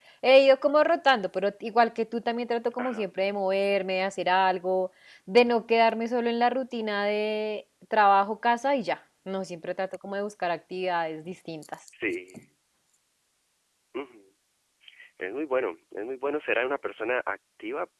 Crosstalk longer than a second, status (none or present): none